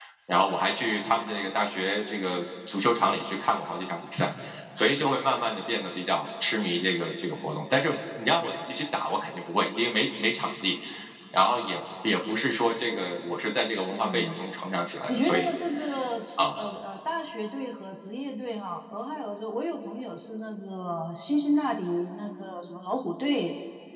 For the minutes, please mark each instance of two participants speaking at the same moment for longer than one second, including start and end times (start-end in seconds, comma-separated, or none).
none